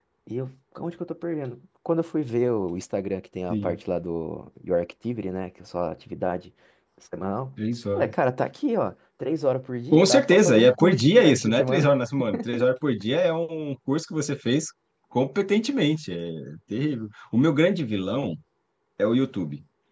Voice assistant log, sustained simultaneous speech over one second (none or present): present